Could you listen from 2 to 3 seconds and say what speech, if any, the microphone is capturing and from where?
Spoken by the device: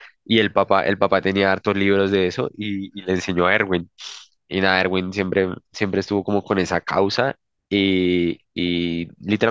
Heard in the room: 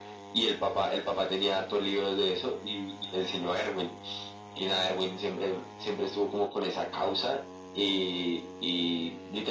echo only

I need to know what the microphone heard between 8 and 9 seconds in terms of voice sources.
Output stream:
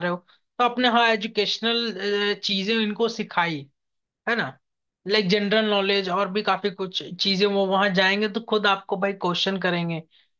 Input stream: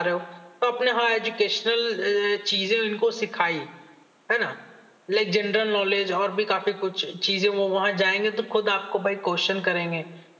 echo only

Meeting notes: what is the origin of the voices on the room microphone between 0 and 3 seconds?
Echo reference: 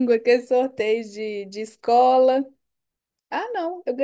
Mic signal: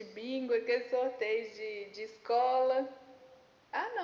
echo only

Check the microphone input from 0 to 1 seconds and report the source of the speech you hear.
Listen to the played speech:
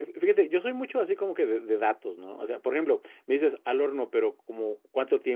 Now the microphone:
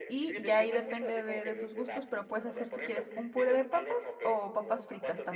both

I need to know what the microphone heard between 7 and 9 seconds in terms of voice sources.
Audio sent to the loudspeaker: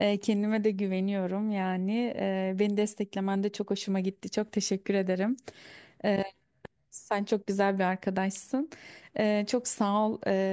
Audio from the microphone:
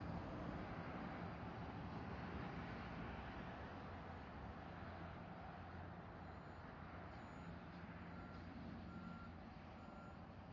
neither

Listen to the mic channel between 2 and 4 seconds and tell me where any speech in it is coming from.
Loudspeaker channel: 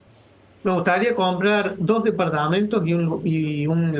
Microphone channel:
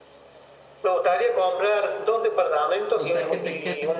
both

